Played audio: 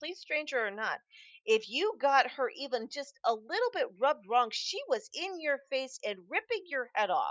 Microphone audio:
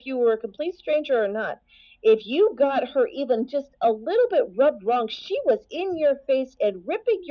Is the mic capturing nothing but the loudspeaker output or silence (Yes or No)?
Yes